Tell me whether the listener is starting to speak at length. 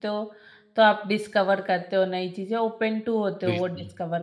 Yes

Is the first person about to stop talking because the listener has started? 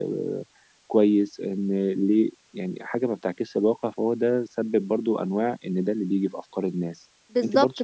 Yes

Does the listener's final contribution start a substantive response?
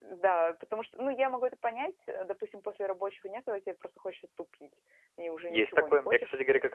Yes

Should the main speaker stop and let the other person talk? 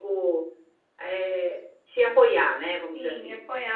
Yes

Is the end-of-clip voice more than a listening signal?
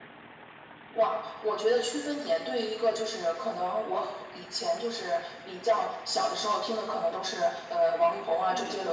No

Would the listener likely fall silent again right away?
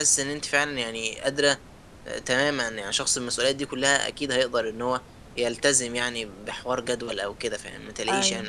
No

